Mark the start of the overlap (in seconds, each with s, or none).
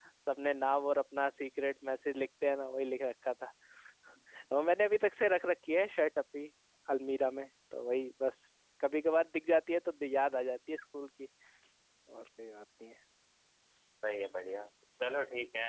none